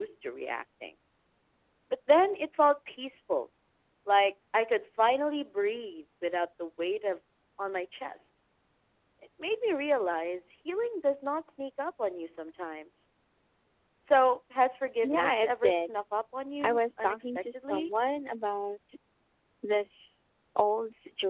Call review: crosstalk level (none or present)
present